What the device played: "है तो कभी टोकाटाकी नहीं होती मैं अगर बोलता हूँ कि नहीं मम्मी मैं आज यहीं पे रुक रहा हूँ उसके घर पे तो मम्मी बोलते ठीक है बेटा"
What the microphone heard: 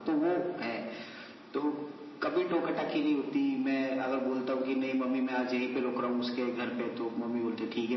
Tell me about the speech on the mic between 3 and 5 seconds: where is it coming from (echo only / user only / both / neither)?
echo only